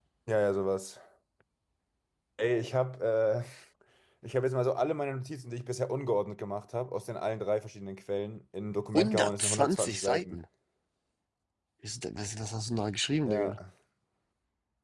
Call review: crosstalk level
present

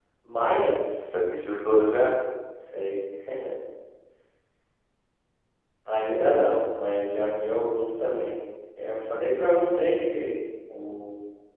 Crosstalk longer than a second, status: none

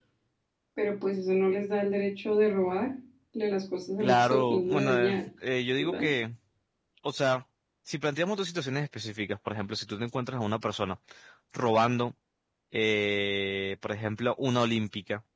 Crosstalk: present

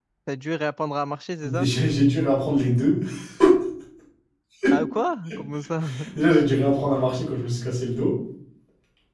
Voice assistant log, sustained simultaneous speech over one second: none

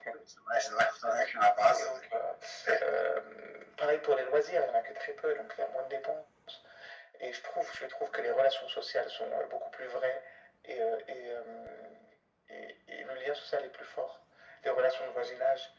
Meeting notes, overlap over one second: none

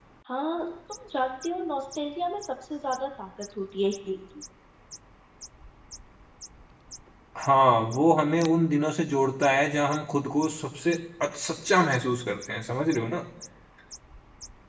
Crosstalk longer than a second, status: none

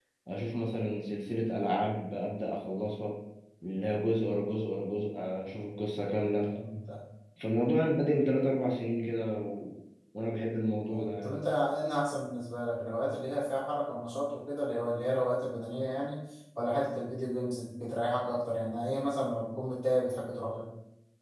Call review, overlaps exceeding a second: none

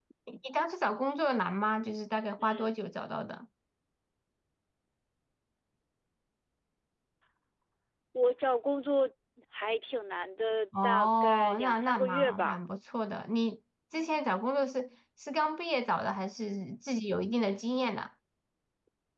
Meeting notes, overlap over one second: present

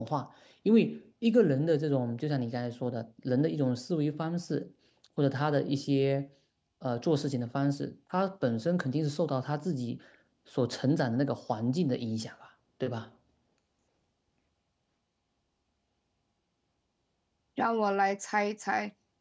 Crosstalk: none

